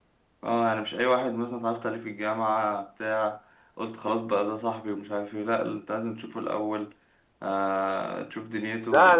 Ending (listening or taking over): taking over